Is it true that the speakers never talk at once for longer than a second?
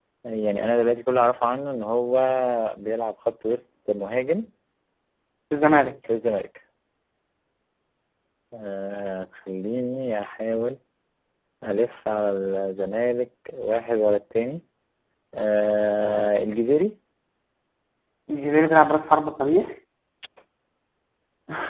Yes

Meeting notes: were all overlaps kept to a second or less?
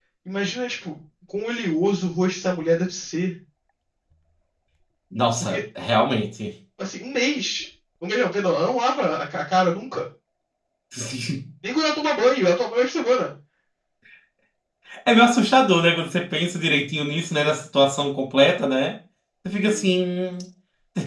Yes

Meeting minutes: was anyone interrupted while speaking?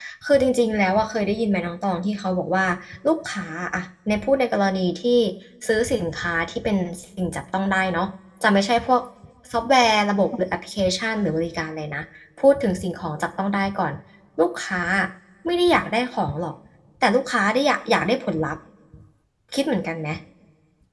No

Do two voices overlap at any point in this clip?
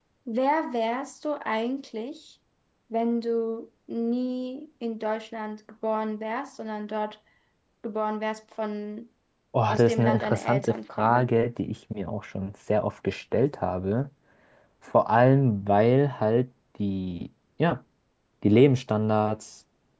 Yes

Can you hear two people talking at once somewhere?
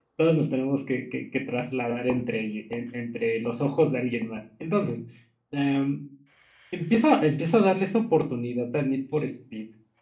No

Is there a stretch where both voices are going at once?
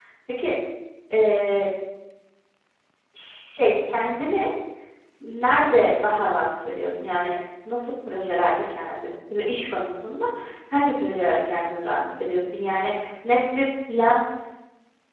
No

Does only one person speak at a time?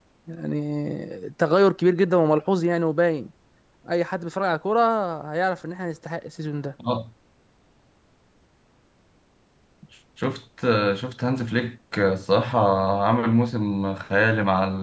Yes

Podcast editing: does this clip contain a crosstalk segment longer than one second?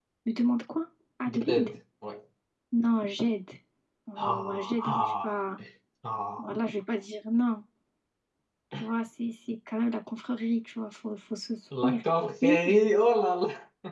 Yes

